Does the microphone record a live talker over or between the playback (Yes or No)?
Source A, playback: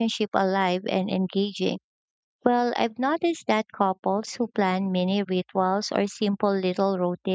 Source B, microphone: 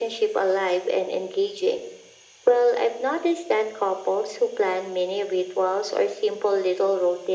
No